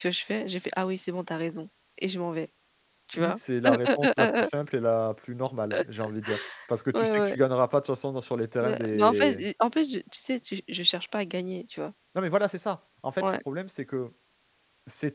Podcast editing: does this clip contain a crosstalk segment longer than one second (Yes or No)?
Yes